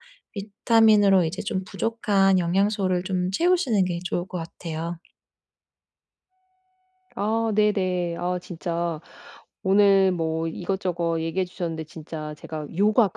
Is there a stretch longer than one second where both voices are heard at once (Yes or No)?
No